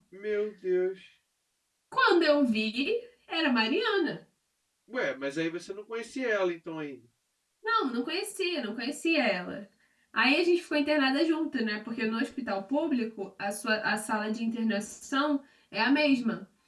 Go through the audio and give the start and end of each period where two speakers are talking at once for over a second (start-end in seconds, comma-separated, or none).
none